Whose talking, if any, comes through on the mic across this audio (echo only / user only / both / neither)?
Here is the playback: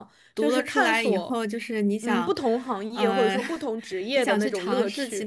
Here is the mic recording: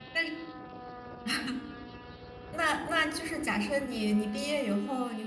user only